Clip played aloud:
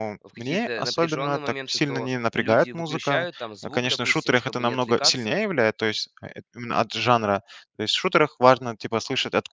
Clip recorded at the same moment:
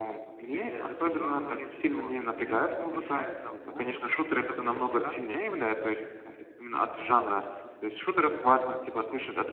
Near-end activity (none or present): none